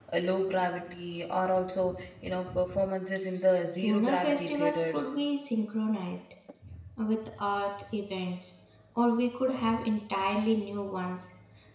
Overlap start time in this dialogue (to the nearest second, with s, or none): 4 s